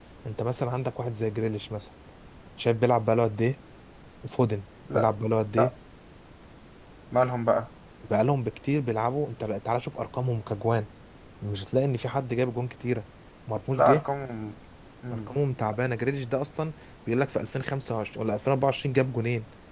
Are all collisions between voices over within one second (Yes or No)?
Yes